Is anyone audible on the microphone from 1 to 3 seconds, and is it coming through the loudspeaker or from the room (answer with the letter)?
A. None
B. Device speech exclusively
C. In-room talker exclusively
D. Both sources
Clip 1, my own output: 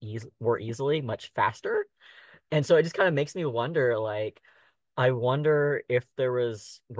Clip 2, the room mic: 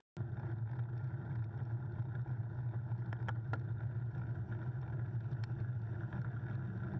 A